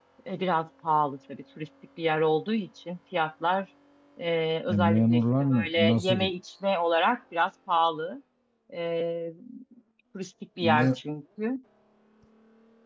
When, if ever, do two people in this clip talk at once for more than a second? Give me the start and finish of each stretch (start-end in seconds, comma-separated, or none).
4.7-6.2